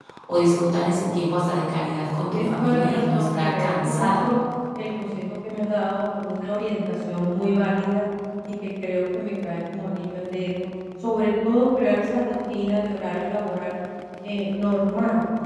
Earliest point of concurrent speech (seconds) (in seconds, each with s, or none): 2.3 s